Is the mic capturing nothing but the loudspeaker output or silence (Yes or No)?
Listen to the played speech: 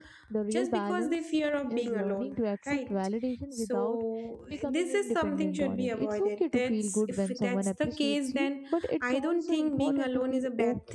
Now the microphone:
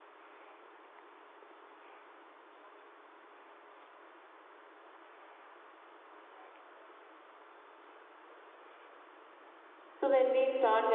No